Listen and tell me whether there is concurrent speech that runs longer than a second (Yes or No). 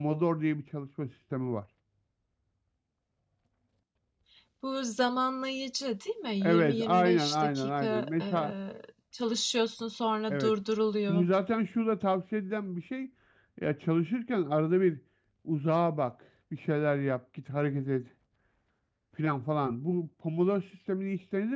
Yes